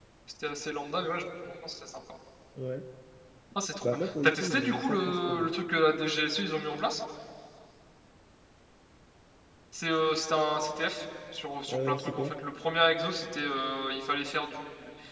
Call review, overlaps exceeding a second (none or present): present